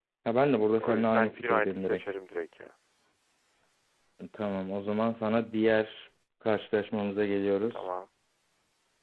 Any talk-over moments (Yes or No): Yes